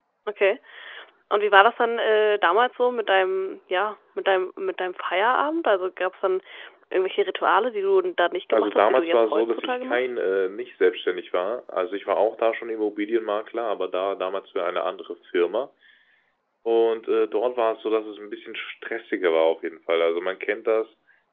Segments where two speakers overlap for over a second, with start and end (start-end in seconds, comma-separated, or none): 8.5-10.1